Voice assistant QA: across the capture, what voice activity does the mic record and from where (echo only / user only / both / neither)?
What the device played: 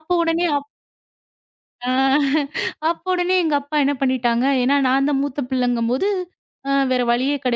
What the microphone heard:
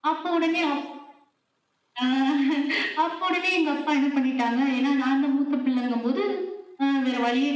echo only